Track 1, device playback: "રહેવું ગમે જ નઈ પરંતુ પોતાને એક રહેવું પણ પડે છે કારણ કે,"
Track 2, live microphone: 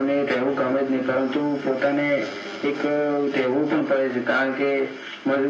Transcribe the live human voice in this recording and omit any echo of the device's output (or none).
none